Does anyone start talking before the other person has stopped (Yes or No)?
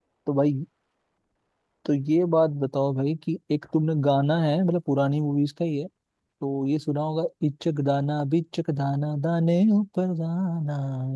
No